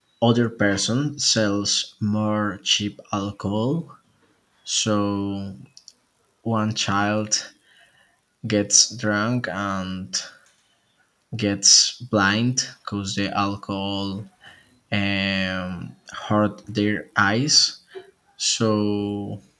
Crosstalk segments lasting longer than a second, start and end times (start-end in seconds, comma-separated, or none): none